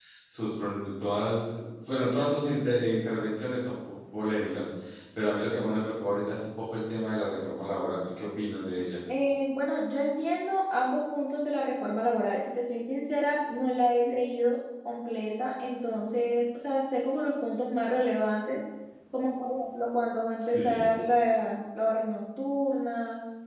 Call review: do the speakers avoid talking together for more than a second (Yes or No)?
Yes